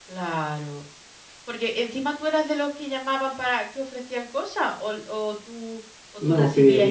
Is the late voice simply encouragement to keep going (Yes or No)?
No